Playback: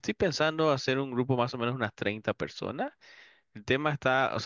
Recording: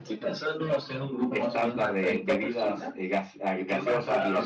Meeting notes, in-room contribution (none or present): present